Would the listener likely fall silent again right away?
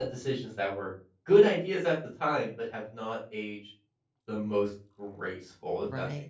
No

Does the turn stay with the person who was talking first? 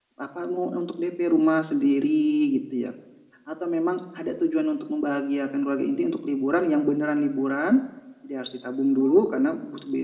Yes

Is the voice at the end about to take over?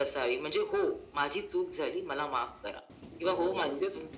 Yes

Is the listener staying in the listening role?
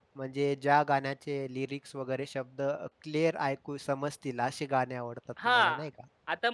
No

